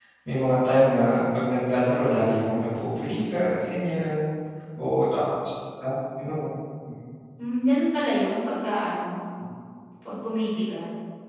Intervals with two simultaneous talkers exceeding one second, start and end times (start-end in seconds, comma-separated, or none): none